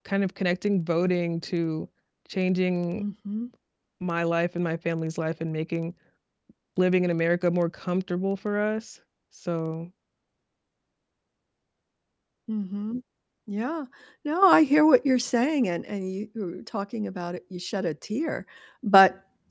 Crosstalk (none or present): none